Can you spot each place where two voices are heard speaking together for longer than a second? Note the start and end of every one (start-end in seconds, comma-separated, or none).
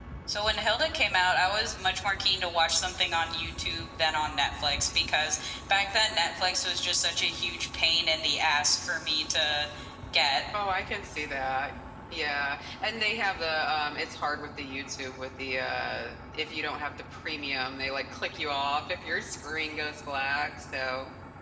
none